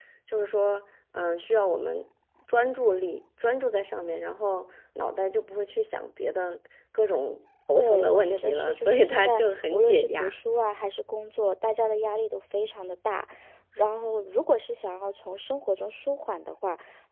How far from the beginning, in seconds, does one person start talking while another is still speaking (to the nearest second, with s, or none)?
8 s